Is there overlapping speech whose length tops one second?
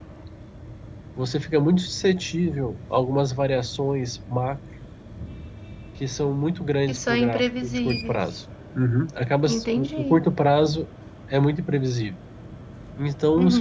Yes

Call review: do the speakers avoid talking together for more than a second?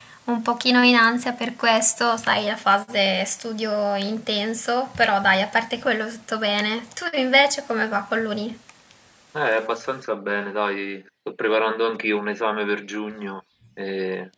Yes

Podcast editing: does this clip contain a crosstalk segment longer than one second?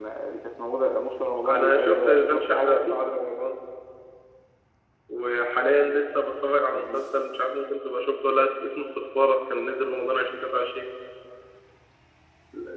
Yes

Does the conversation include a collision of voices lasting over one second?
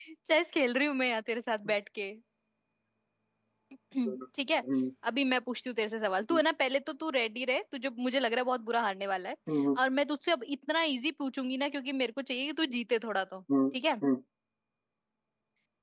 No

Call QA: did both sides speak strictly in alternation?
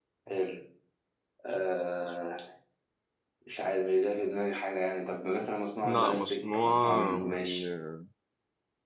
No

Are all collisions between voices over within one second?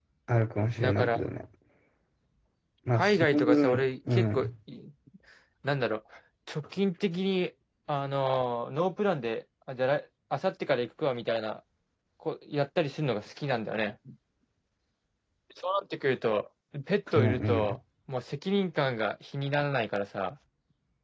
No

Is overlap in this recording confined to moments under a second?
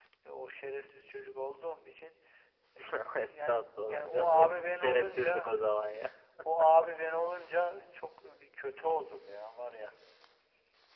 No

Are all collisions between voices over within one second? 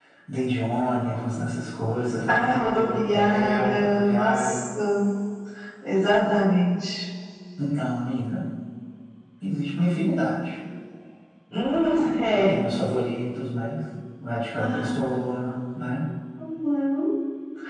No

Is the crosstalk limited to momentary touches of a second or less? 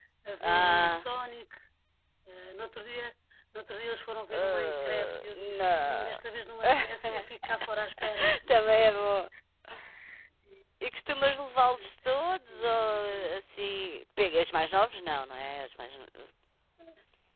No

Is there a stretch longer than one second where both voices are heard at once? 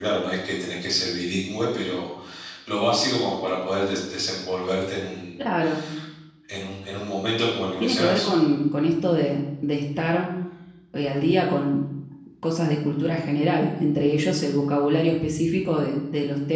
No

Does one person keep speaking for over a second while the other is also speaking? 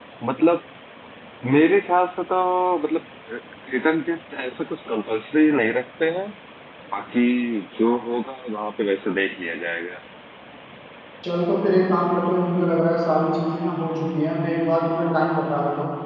No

